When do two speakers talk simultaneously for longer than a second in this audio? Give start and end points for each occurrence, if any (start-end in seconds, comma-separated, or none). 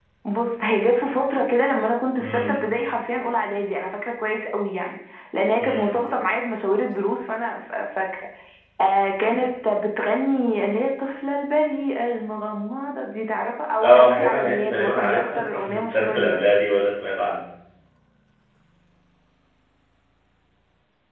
13.8-16.4